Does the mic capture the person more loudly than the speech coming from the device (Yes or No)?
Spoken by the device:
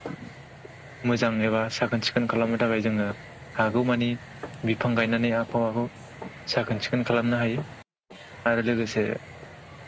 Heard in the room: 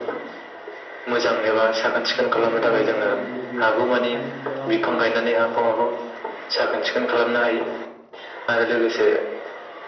No